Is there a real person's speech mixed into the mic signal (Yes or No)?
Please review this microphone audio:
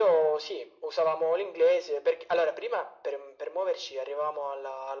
No